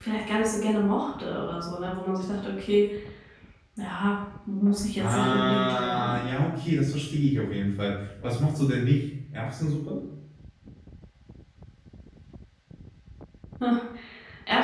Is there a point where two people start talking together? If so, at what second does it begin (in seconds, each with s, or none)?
5.0 s